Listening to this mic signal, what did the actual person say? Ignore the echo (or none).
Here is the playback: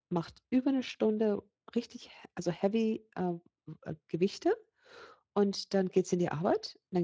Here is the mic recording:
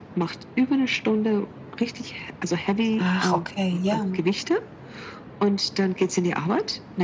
Ach, okay, ja.